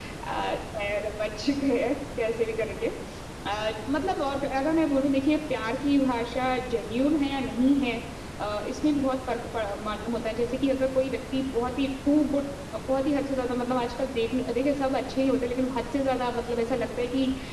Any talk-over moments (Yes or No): No